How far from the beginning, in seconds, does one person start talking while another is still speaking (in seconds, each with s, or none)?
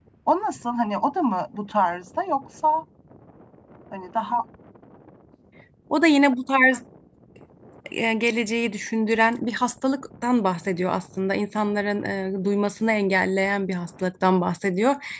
none